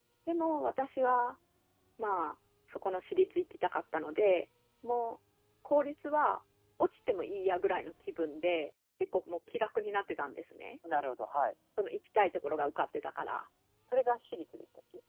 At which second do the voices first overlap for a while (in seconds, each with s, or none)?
none